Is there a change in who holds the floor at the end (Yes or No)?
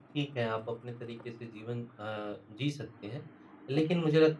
No